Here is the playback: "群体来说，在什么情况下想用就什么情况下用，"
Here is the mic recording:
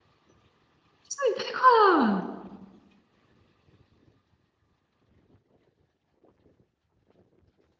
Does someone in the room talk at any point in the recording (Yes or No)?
Yes